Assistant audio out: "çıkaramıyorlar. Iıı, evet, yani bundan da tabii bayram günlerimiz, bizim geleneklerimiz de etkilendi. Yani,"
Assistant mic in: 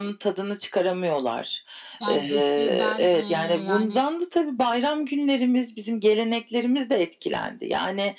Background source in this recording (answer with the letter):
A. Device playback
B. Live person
B